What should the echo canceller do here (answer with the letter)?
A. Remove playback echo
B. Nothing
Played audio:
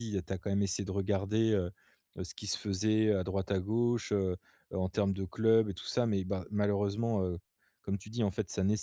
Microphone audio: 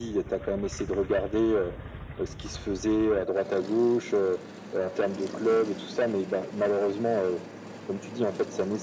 A